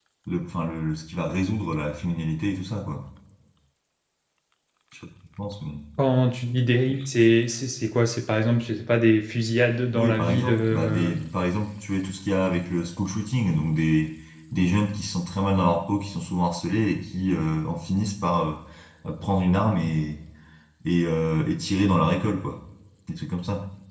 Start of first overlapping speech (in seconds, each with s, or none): 9.9 s